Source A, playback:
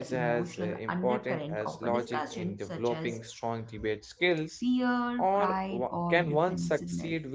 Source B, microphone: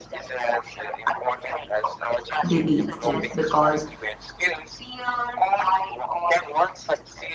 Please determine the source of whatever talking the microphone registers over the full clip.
both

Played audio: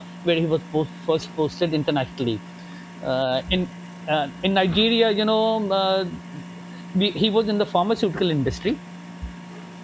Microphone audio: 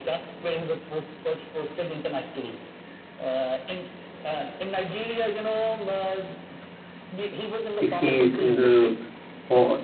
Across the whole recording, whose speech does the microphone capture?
both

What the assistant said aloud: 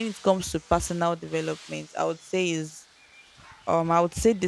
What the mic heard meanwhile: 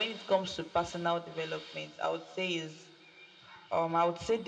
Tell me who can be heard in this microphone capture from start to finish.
echo only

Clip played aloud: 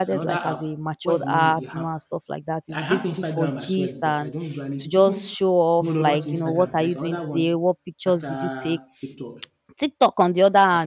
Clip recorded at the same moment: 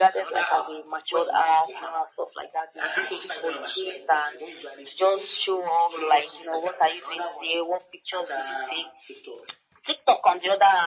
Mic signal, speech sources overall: echo only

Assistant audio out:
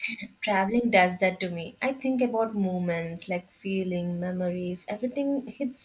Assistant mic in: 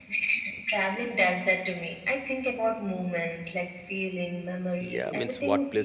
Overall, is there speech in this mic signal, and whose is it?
both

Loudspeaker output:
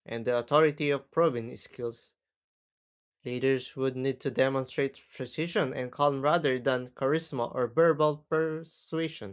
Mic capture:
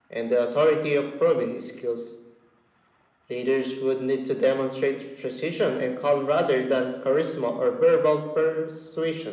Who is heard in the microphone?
echo only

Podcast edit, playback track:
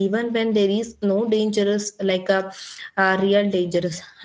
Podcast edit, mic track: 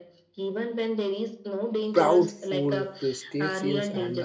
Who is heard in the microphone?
both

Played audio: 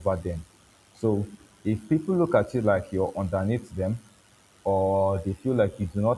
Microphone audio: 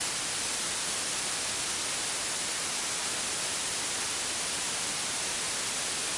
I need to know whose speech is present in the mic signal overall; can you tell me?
neither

